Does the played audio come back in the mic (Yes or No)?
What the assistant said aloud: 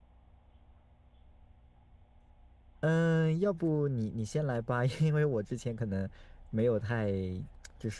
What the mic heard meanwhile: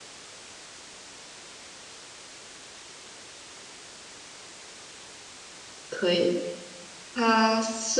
No